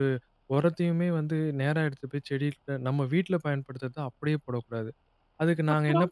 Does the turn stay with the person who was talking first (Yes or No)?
Yes